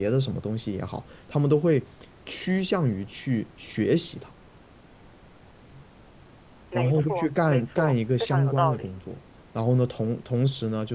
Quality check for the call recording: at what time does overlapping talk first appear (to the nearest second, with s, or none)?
7 s